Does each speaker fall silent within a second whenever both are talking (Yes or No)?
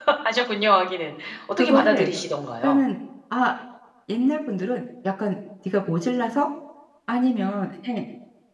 Yes